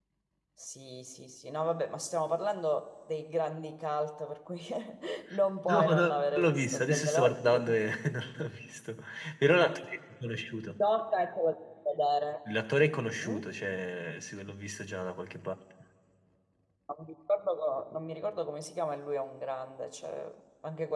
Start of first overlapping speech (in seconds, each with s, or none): 5.7 s